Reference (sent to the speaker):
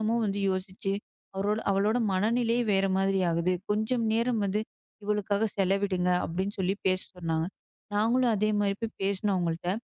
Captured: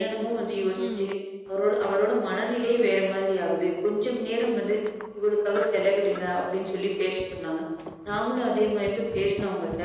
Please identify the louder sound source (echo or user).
echo